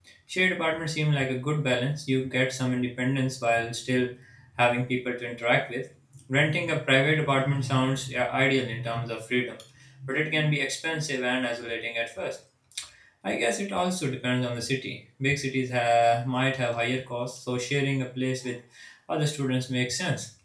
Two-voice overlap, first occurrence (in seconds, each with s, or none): none